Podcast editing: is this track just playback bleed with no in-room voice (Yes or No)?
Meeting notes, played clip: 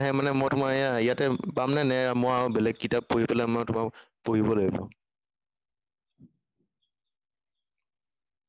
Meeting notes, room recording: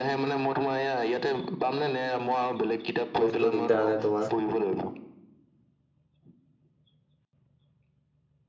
No